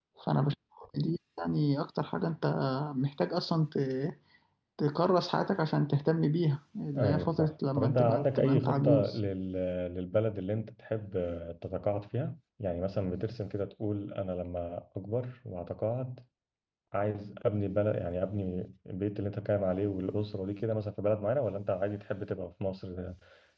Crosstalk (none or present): present